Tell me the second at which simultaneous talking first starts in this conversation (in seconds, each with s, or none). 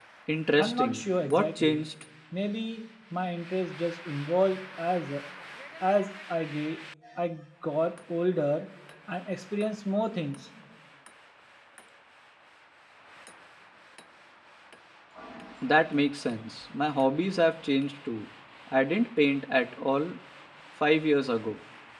0.6 s